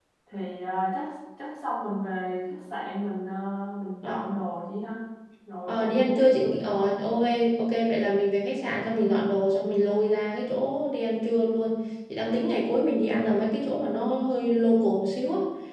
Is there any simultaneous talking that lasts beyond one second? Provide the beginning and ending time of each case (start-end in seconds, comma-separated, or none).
5.7-6.9